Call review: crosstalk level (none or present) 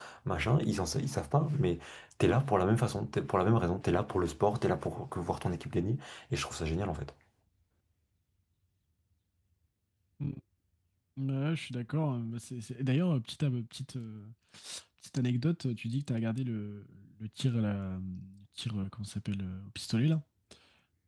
none